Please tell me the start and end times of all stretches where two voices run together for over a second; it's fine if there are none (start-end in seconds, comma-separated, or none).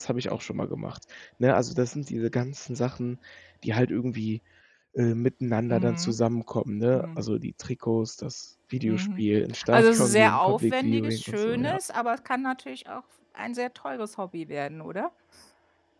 9.7-11.8